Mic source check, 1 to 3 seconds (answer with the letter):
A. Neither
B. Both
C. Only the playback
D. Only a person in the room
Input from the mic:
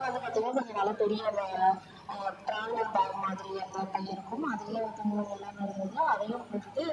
C